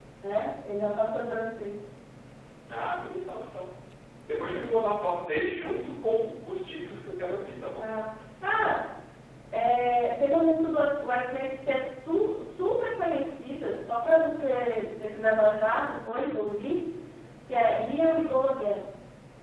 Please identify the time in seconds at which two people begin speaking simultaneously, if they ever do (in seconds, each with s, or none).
none